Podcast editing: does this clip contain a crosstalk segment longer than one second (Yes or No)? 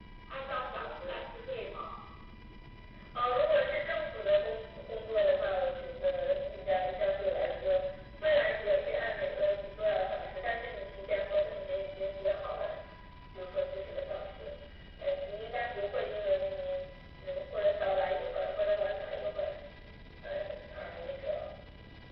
No